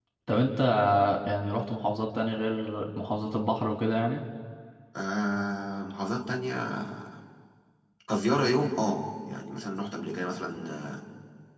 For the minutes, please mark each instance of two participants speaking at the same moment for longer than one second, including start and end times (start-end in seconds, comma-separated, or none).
none